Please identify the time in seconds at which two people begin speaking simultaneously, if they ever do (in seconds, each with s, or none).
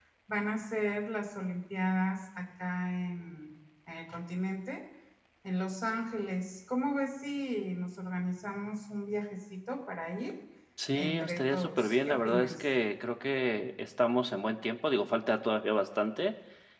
11.0 s